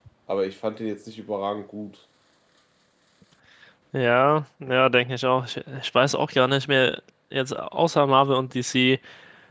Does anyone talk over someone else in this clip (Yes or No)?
No